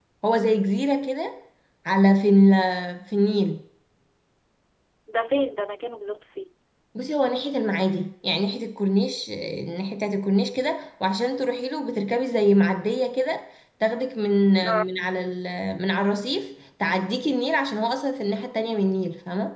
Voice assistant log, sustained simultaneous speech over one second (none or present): none